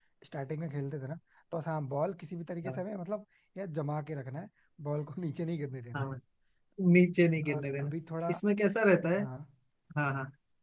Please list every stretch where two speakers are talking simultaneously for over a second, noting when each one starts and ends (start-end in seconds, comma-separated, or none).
none